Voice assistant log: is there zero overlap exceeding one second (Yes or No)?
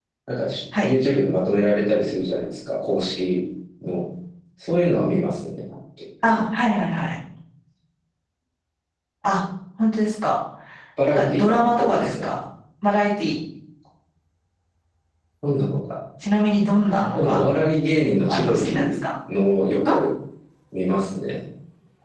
No